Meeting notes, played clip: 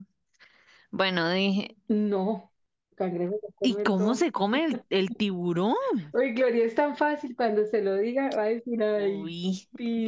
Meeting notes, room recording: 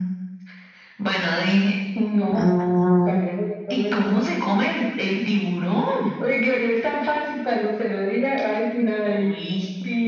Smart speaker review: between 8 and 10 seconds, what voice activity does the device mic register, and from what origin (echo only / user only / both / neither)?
echo only